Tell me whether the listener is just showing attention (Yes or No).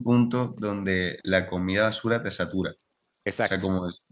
Yes